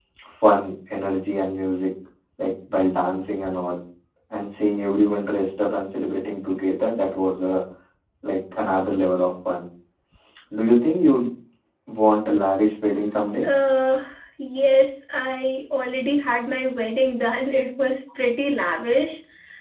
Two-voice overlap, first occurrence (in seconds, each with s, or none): none